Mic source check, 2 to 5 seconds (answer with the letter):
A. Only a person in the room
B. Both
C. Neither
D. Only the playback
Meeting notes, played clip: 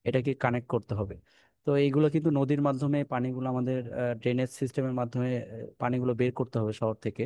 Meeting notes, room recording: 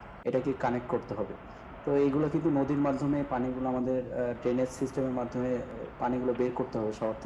D